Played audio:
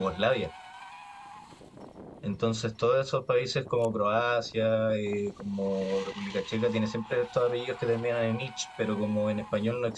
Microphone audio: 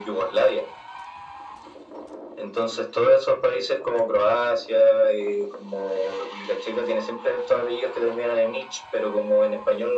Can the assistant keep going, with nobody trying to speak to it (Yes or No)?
Yes